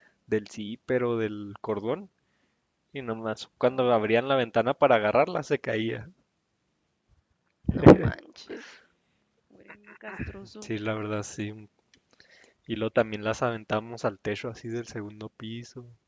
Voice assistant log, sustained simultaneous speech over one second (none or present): none